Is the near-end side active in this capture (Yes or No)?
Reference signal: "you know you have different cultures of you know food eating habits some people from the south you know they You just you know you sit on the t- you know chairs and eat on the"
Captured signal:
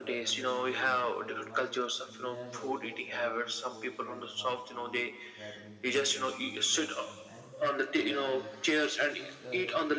Yes